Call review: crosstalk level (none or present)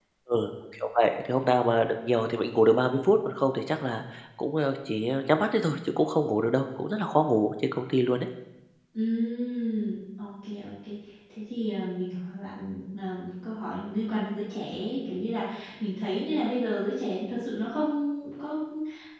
none